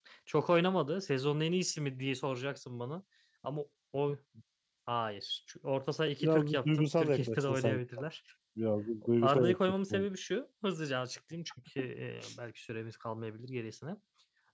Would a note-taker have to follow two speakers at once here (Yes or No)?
Yes